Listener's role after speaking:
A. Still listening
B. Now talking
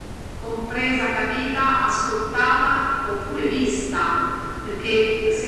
A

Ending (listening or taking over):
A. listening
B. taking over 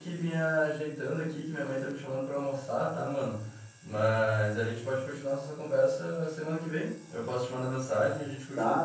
B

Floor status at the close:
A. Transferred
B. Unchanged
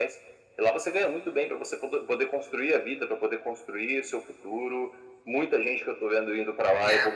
B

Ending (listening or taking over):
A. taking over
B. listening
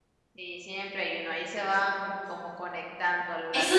A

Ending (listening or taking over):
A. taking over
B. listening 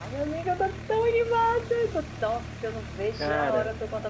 B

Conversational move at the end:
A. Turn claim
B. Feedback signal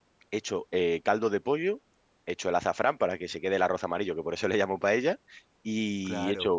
B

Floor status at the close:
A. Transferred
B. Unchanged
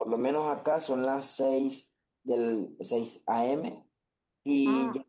B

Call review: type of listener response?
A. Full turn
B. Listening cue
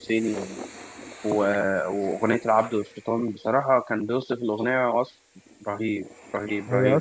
A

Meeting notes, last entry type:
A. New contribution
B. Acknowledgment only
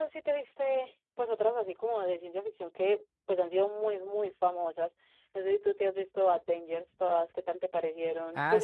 A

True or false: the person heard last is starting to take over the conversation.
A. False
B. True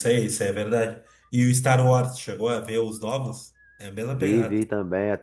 B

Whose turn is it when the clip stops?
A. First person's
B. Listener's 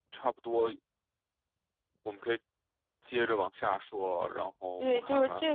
B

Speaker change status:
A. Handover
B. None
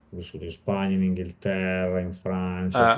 B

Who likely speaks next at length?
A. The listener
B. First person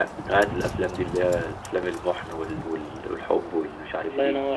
A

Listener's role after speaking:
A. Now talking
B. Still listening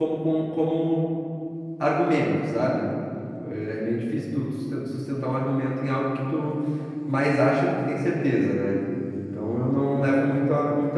B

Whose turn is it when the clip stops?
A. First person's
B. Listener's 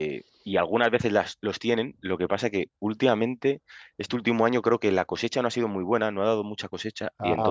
A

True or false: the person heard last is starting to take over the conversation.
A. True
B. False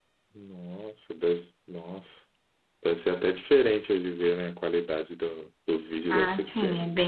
A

